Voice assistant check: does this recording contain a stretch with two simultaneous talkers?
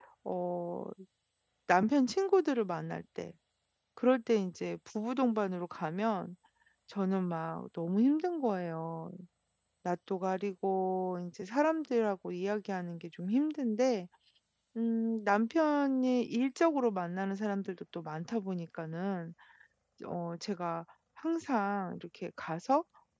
No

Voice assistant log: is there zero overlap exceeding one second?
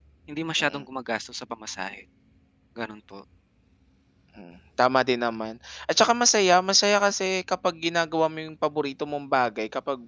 Yes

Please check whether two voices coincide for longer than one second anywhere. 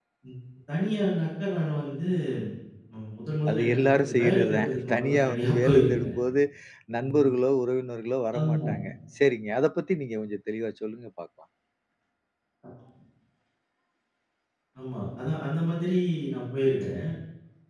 Yes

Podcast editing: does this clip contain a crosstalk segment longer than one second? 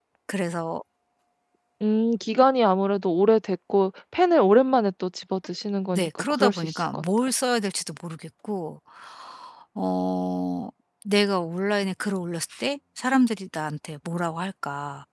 Yes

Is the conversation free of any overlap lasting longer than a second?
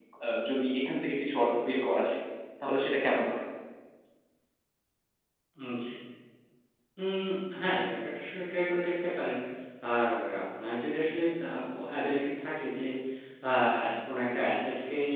Yes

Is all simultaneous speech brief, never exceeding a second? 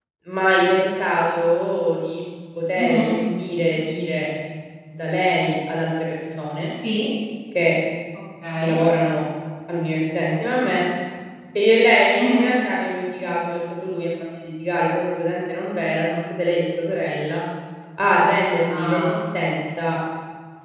Yes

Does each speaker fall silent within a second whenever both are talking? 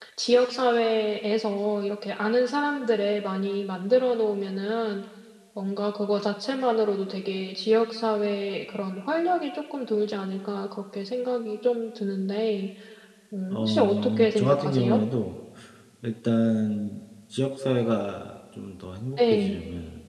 No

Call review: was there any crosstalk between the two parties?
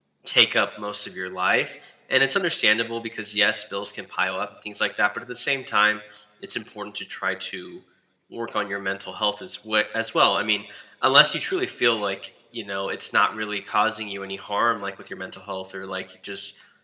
No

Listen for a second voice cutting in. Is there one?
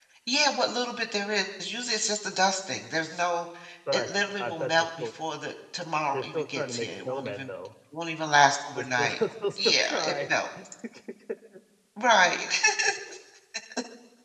Yes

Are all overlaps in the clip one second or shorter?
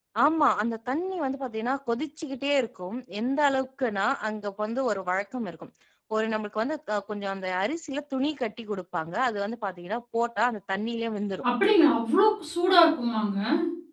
Yes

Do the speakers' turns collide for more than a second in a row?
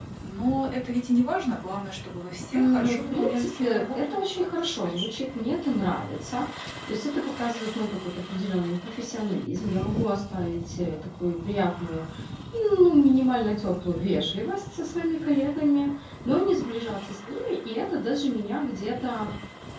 Yes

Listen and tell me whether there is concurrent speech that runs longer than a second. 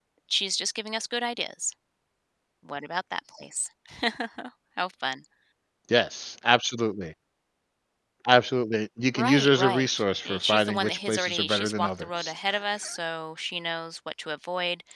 Yes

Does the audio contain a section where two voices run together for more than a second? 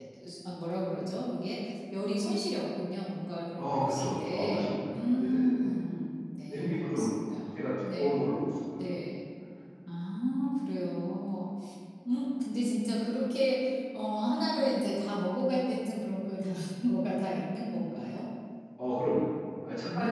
Yes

